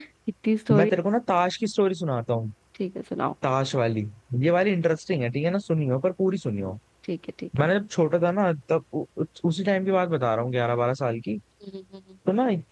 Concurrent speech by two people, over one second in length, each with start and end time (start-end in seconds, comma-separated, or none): none